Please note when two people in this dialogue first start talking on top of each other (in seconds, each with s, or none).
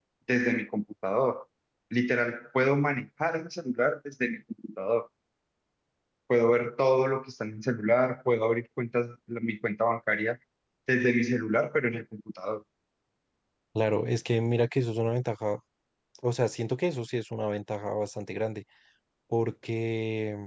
none